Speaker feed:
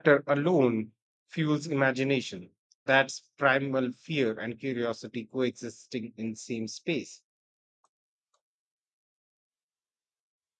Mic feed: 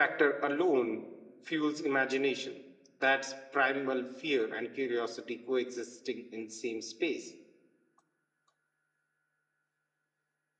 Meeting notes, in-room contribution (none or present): none